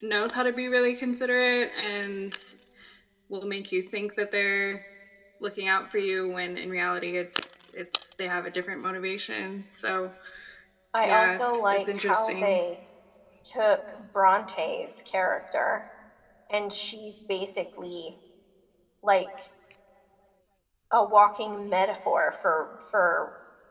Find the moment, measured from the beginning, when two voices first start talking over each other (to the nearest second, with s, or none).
11 s